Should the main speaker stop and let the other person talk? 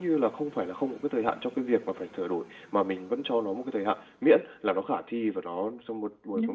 No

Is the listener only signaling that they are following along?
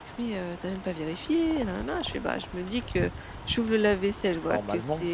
Yes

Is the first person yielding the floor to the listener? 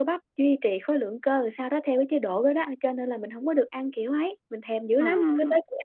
Yes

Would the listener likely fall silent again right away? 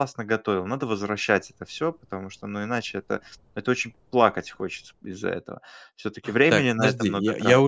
No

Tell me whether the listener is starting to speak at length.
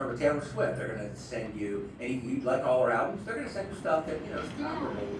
No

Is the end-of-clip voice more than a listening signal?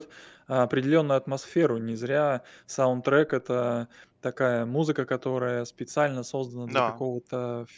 No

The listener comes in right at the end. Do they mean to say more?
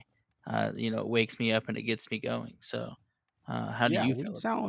Yes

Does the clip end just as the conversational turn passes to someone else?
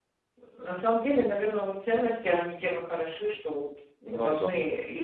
No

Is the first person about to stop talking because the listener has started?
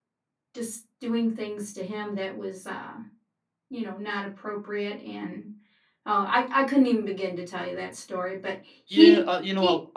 Yes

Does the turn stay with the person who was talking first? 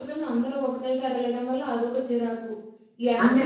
Yes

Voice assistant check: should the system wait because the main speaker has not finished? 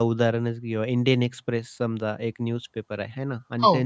Yes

